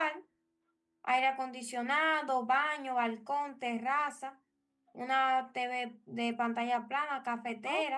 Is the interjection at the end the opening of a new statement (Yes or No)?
Yes